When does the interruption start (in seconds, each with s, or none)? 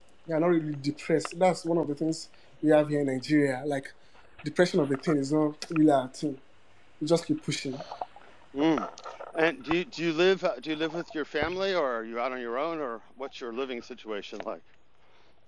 none